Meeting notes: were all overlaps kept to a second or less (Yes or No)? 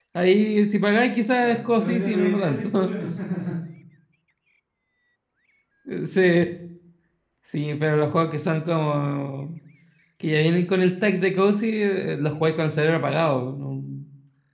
No